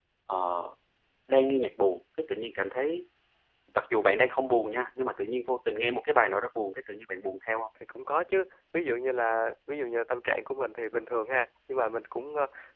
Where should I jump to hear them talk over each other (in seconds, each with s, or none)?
none